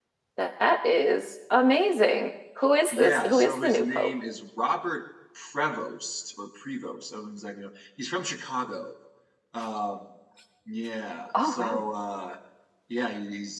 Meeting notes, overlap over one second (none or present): present